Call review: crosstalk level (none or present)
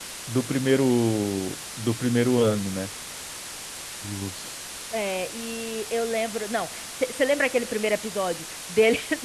none